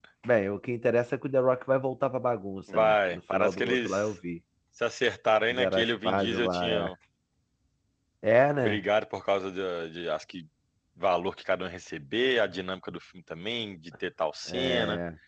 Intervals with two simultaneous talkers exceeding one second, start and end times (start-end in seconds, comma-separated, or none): 2.7-4.1, 5.5-6.8